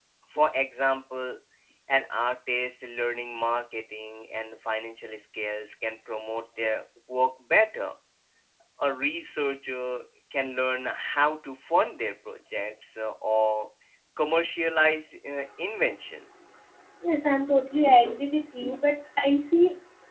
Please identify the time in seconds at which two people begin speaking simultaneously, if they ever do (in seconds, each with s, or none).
none